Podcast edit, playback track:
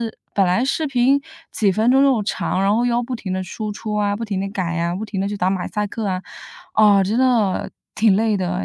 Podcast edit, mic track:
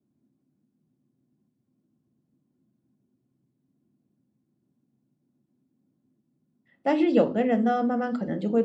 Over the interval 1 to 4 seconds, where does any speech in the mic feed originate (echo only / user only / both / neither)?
neither